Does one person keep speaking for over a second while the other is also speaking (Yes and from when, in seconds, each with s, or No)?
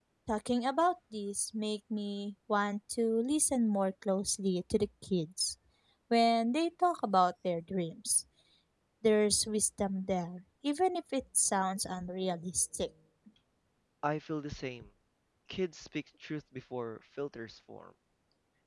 No